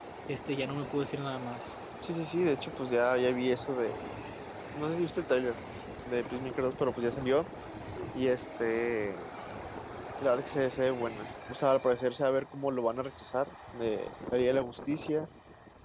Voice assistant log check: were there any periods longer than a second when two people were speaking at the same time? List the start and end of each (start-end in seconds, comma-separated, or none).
none